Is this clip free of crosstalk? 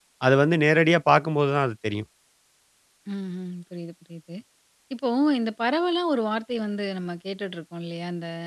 Yes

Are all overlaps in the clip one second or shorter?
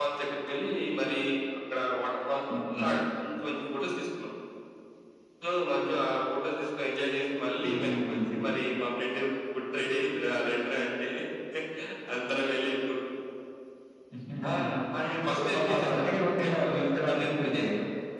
No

